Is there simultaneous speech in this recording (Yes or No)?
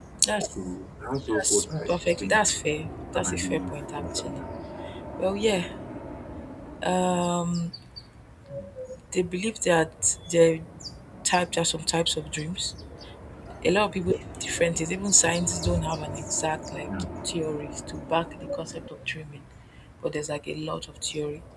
Yes